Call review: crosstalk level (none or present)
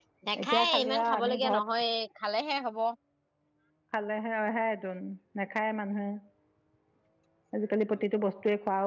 present